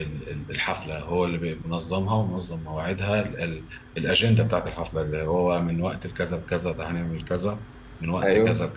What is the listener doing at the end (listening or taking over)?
taking over